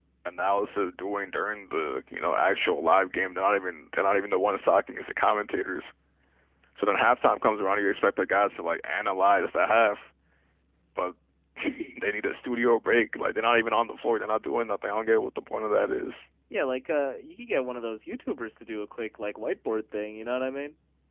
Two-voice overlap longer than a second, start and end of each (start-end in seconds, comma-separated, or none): none